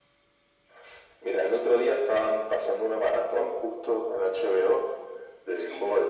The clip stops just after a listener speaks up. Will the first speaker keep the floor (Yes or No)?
Yes